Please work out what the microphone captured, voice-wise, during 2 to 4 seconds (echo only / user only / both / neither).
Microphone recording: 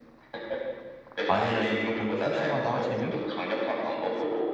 both